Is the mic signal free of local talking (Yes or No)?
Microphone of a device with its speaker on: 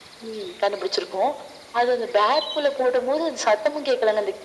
Yes